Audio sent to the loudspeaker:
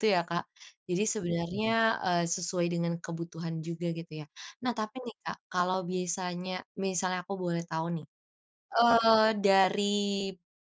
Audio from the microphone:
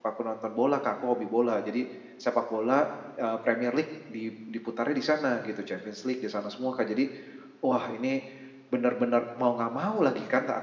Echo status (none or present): none